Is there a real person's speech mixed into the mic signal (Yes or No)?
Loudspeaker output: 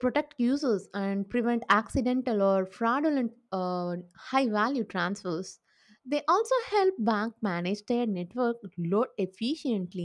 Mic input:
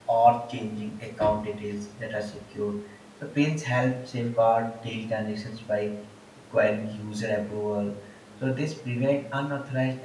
Yes